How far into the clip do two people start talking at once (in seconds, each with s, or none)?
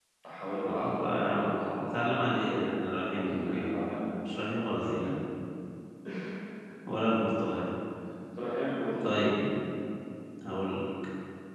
0.7 s